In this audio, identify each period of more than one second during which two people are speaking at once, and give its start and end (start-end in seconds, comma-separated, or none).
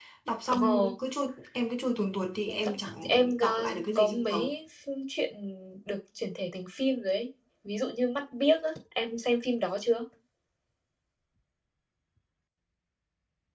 3.1-4.5